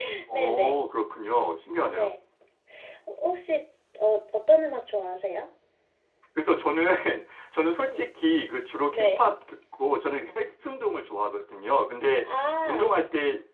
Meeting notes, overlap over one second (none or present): none